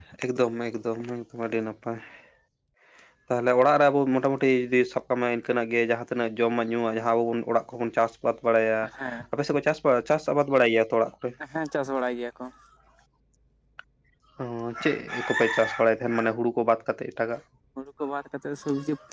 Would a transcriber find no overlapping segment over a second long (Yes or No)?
Yes